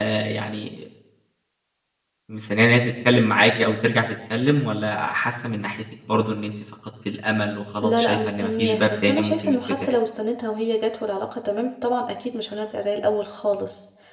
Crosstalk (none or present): present